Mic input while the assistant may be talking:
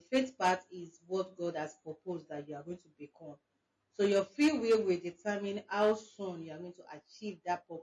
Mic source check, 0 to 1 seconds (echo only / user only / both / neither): user only